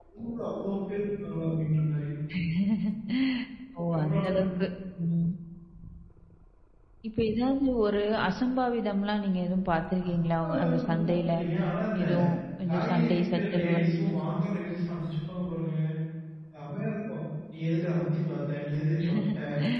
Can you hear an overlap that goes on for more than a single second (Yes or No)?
Yes